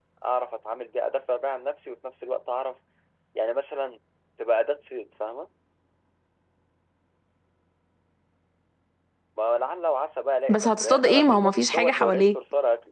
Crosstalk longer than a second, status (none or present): present